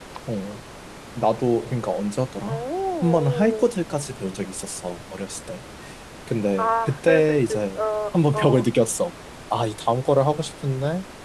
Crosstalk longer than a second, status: present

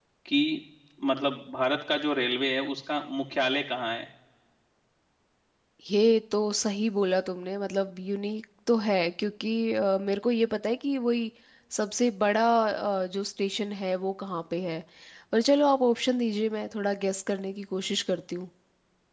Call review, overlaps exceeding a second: none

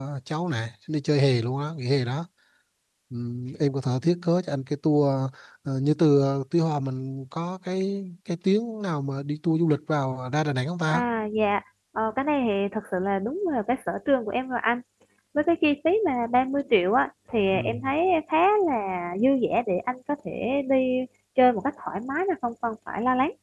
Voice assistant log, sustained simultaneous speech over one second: none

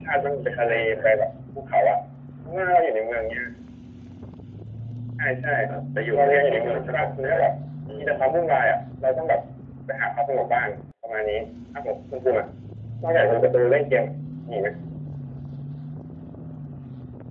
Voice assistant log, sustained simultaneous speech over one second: present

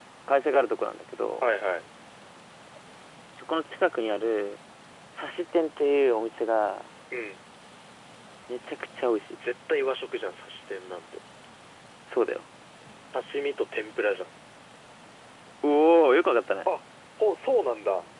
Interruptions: none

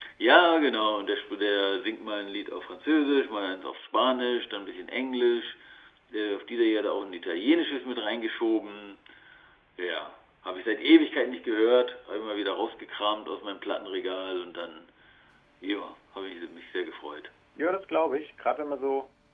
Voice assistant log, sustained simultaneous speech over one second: none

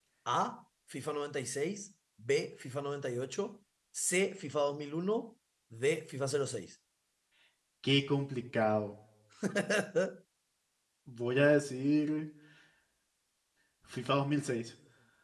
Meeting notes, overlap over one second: none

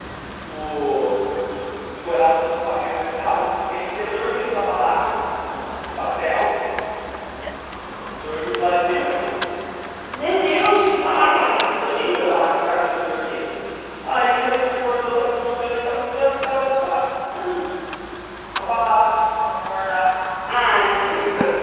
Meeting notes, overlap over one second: present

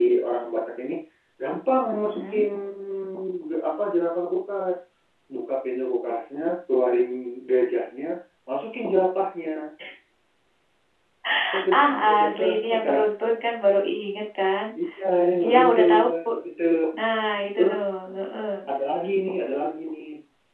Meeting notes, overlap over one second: present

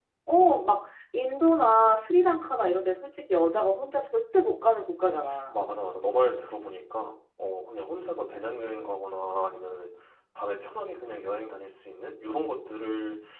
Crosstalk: none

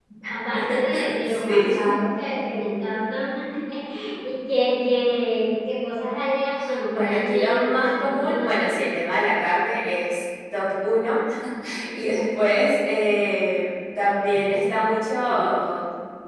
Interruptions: present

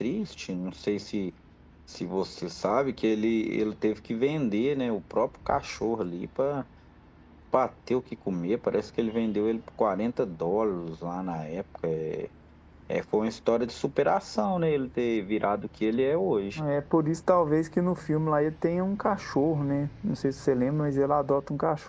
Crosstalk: none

